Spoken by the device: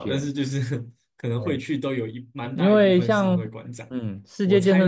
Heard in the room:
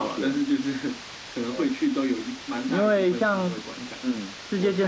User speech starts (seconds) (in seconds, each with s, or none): none